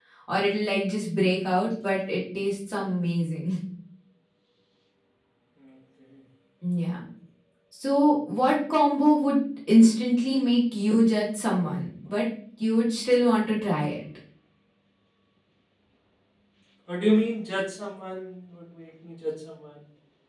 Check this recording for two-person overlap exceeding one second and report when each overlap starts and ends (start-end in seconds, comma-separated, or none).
none